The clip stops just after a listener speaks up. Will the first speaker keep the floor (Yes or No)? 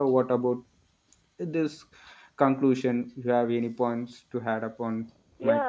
No